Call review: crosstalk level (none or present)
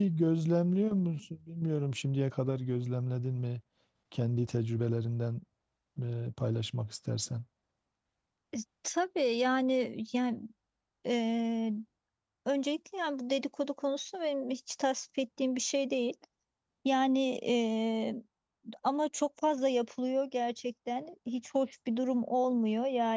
none